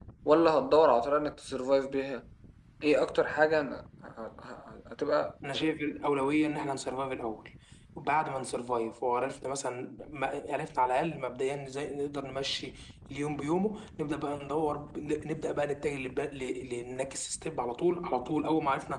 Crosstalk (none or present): none